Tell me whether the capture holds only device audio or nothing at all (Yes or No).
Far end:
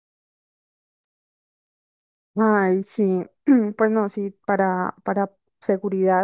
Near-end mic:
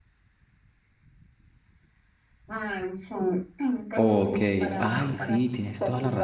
No